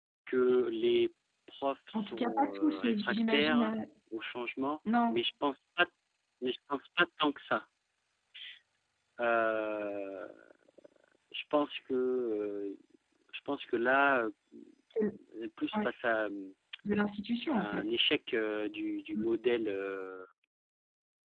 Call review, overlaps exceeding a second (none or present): present